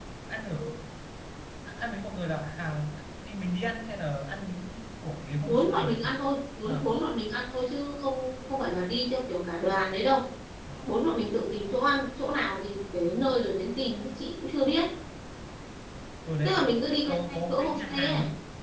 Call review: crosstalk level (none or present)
present